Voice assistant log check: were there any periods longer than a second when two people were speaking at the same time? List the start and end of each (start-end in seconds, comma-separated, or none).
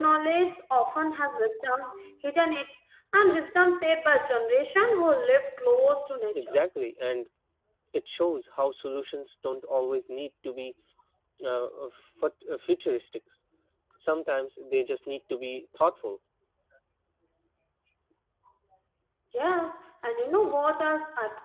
none